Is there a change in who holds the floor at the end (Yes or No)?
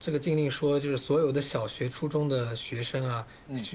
No